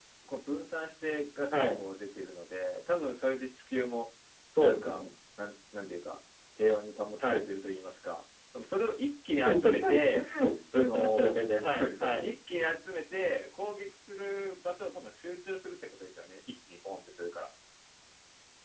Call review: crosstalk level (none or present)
present